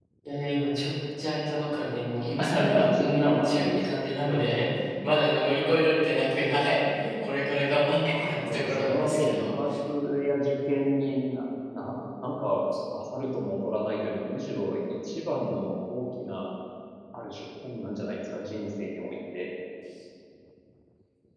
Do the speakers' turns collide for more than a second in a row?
Yes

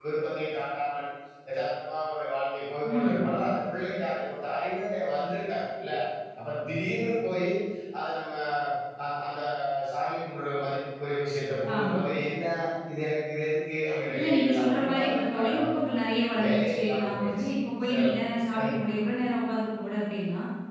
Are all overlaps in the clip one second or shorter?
No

